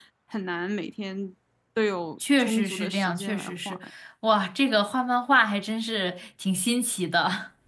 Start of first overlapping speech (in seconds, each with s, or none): 2.4 s